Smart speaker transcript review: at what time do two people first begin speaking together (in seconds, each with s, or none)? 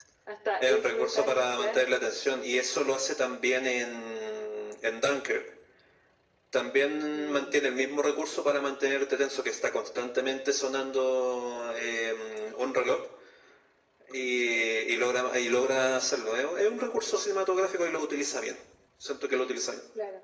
0.6 s